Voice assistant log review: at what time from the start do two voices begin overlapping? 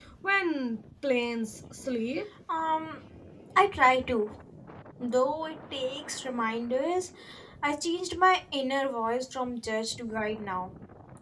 none

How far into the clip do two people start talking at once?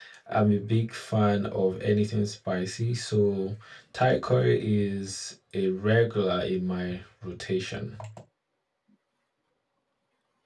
none

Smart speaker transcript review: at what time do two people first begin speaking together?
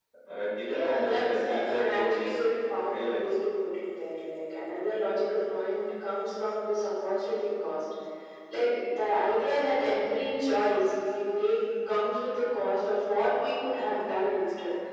1 s

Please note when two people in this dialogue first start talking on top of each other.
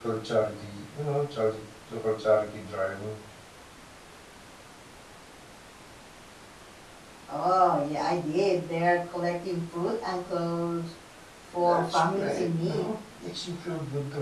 12 s

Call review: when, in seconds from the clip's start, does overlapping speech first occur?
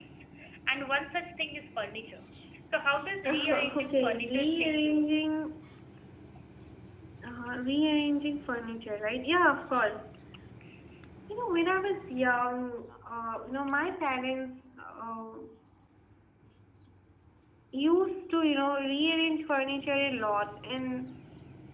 3 s

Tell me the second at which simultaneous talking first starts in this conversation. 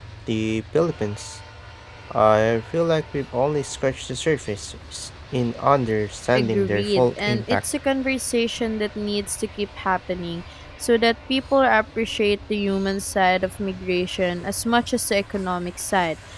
6 s

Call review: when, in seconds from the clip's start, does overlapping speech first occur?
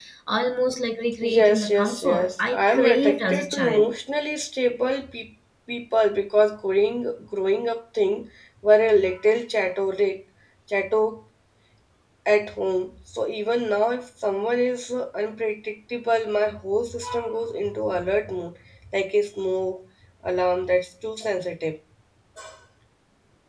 1 s

